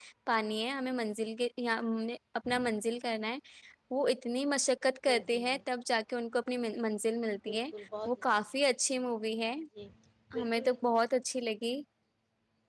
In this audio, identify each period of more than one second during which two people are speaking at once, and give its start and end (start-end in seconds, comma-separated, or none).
none